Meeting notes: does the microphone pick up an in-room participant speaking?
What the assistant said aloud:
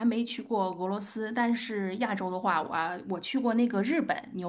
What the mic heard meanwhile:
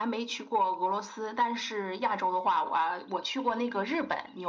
No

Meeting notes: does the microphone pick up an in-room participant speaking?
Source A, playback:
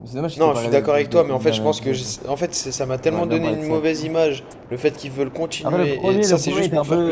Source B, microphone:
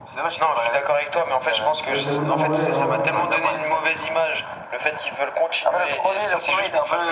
Yes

